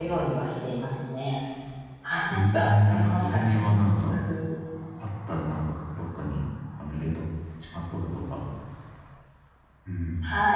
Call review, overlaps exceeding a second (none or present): present